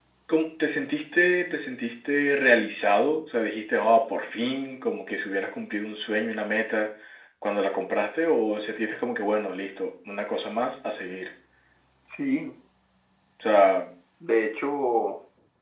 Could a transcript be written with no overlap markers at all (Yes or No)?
Yes